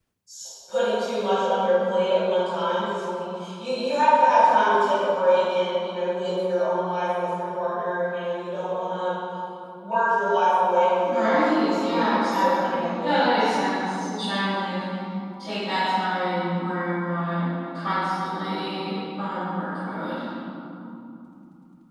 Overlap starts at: 11.0 s

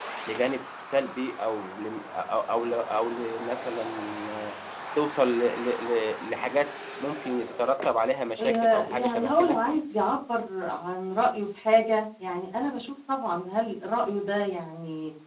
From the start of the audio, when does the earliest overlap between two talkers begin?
8.4 s

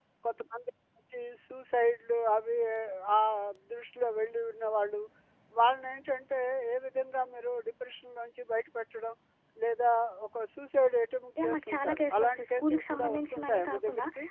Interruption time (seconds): 11.4 s

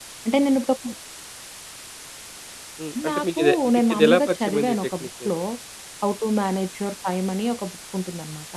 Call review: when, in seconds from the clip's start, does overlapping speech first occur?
3.1 s

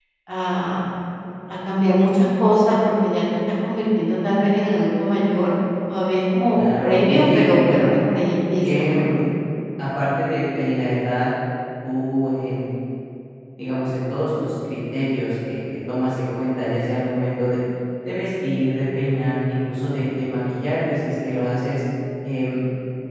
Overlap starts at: 6.6 s

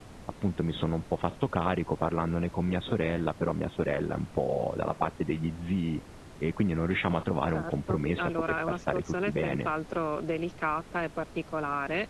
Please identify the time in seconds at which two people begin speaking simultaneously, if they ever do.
7.5 s

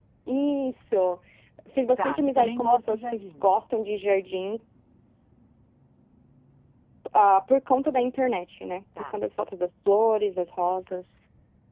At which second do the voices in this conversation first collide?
2.0 s

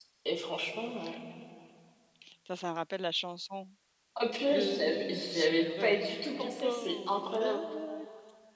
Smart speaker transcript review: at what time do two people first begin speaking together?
4.5 s

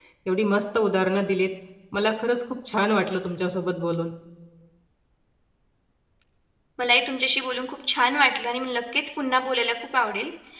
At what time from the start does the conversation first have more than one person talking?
none

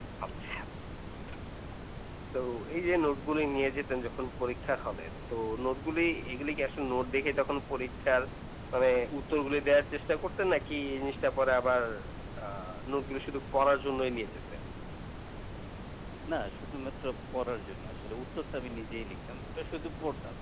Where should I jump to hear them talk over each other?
none

